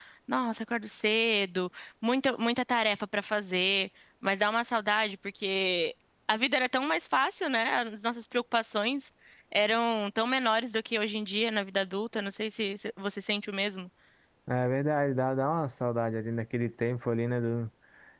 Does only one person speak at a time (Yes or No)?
Yes